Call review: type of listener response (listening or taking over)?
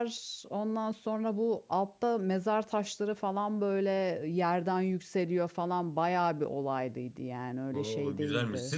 taking over